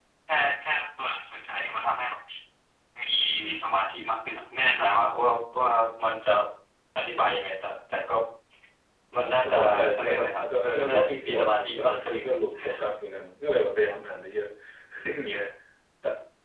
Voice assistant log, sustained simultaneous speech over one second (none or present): present